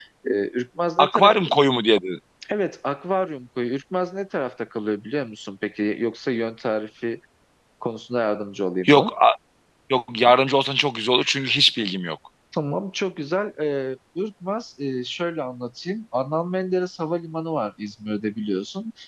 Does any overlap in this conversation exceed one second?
No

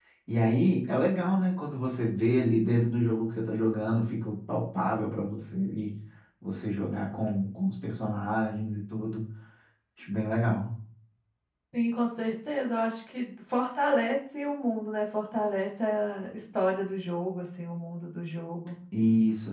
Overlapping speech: No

